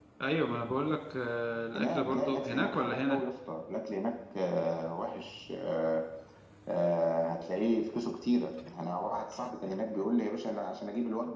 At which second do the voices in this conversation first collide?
1.7 s

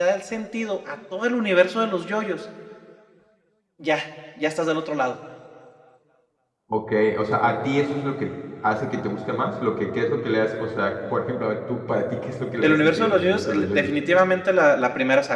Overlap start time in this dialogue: 12.6 s

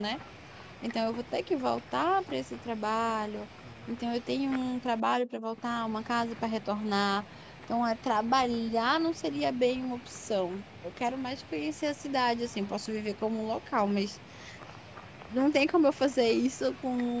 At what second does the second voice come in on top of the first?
none

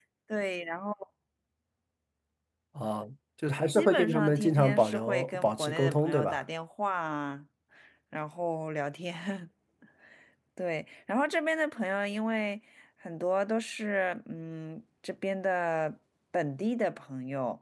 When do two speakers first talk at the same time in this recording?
3.7 s

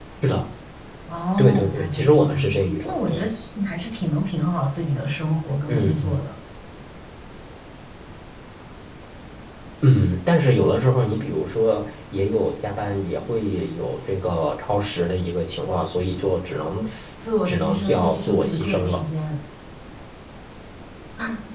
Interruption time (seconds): 1.4 s

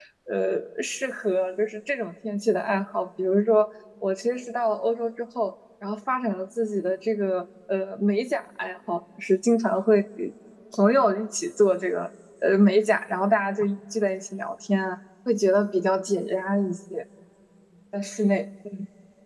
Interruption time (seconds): none

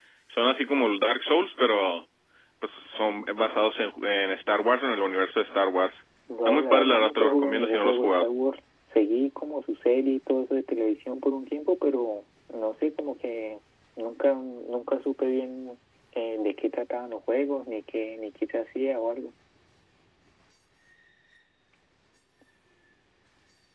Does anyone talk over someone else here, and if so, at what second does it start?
6.3 s

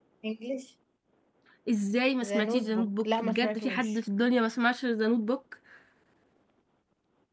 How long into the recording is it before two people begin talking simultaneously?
2.2 s

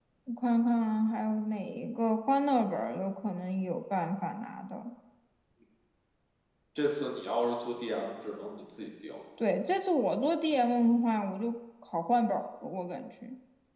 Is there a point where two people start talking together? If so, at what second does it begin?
none

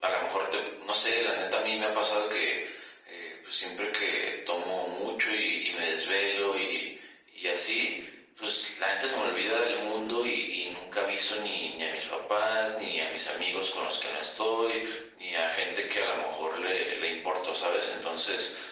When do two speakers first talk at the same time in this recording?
none

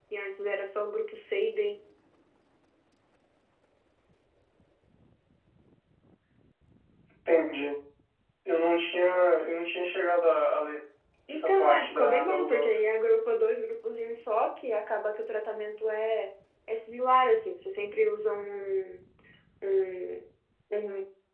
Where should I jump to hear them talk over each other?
11.3 s

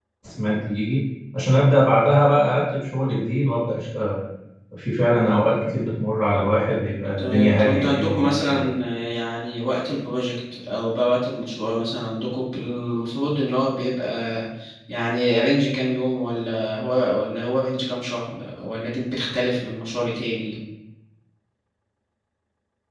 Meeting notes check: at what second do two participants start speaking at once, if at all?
7.2 s

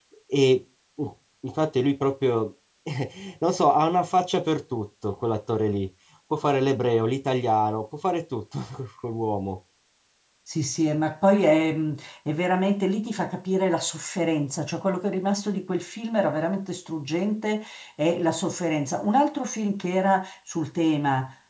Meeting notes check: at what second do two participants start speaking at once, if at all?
none

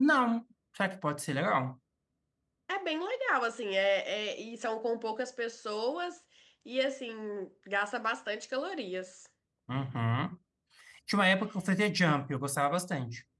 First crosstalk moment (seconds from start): none

